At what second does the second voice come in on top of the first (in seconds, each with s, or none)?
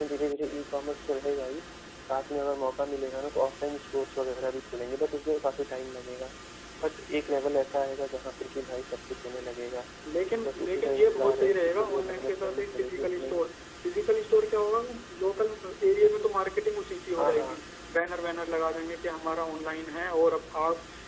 10.4 s